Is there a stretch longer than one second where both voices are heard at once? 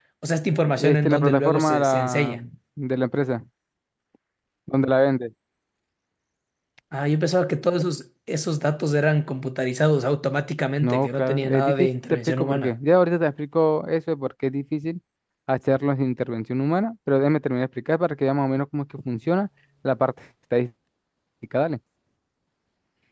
Yes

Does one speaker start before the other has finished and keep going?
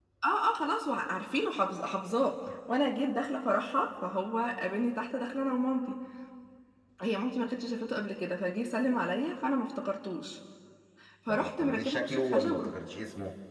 Yes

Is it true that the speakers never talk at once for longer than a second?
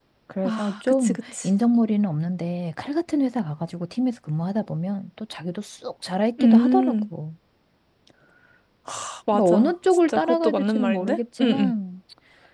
No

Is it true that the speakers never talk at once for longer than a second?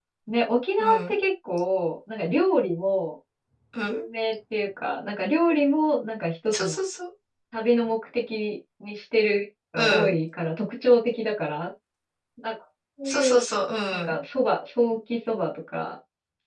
Yes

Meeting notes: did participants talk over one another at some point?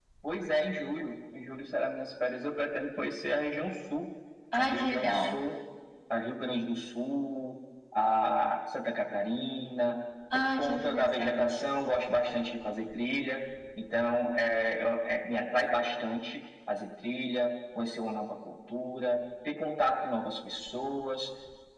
Yes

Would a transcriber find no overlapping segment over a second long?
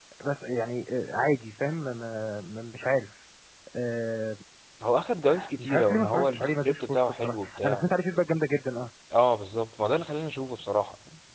No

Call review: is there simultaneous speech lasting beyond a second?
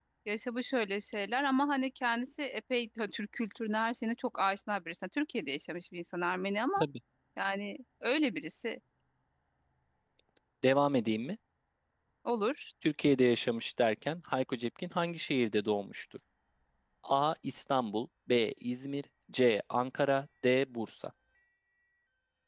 No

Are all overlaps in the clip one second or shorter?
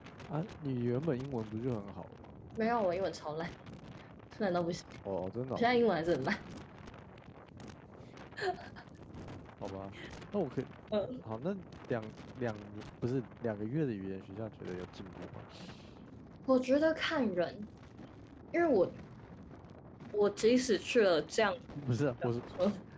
Yes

